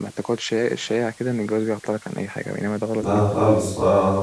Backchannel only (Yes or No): No